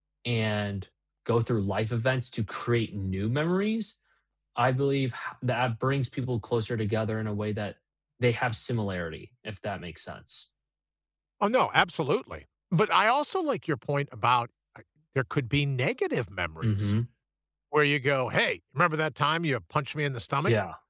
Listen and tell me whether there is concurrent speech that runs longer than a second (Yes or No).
No